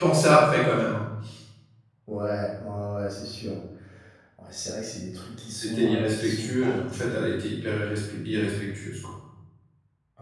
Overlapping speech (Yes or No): Yes